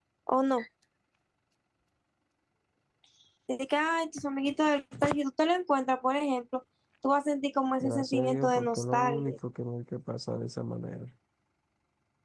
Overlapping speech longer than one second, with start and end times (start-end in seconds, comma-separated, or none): 7.8-9.3